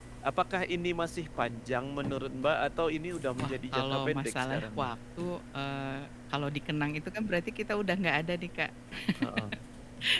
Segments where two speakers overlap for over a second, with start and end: 3.4-5.0

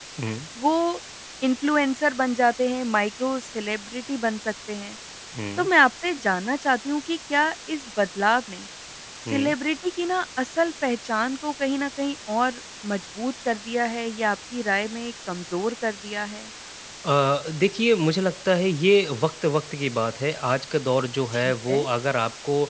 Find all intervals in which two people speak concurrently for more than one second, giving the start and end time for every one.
none

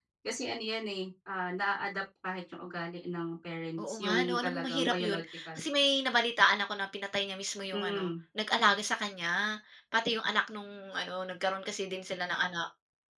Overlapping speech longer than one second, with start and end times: 3.8-5.6

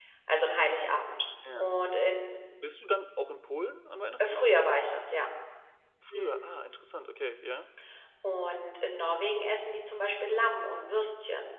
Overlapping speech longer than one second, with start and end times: none

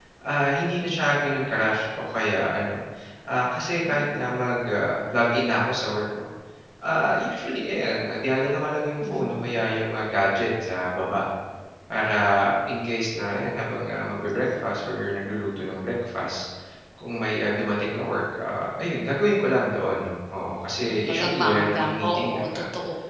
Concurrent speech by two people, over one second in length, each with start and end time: 20.8-22.5

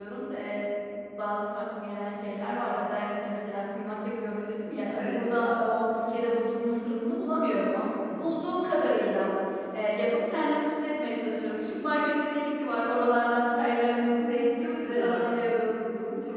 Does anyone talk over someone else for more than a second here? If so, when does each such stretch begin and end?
14.1-15.3

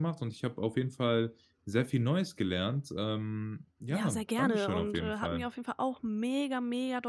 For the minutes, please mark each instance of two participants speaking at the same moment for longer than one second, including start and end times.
3.9-5.5

